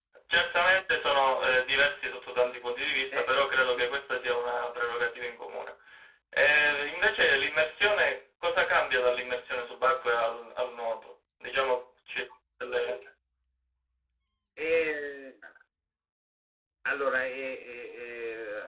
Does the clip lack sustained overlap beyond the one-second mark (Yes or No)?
Yes